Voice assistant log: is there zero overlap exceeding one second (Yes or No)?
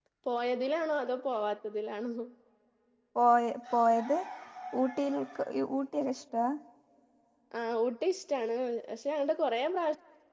Yes